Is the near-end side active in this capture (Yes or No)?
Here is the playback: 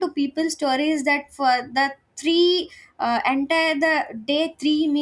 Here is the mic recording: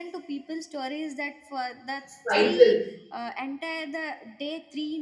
Yes